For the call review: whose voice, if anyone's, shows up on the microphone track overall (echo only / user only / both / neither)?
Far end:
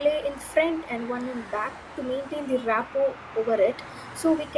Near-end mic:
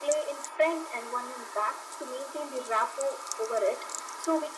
echo only